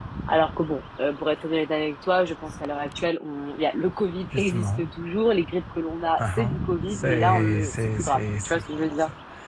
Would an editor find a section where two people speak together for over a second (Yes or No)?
Yes